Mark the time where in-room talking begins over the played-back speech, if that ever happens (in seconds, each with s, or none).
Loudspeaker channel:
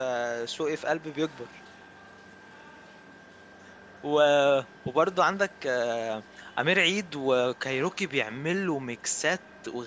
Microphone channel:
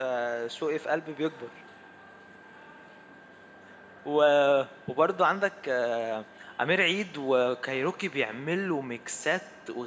none